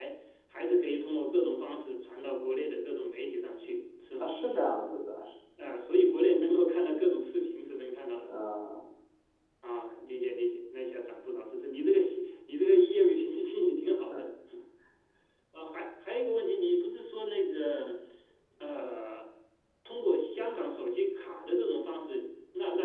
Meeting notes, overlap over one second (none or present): none